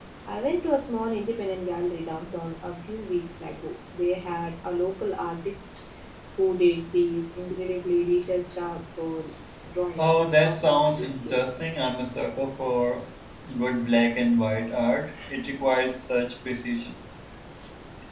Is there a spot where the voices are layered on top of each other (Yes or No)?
Yes